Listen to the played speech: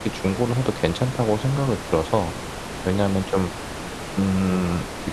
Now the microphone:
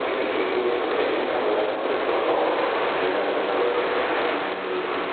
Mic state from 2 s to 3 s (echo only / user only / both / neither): echo only